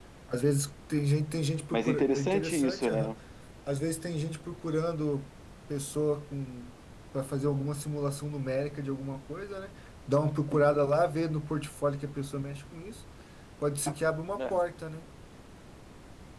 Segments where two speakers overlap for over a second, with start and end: 1.7-3.1

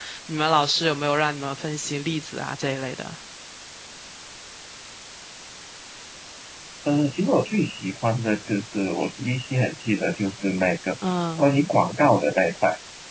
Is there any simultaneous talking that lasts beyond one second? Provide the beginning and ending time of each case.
none

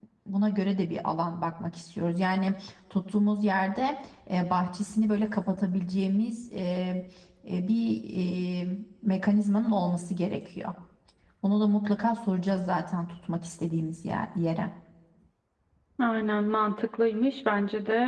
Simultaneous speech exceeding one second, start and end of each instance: none

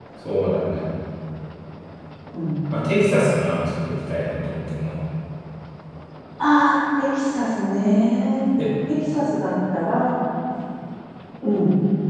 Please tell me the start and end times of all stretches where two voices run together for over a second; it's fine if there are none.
none

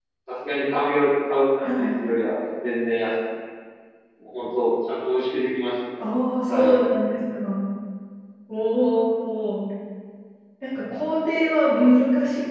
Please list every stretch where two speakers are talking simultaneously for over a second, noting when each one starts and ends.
none

